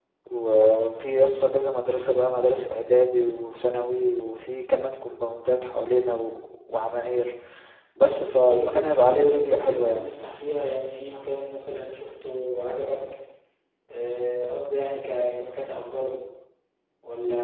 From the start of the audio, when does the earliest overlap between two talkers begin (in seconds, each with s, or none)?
8.4 s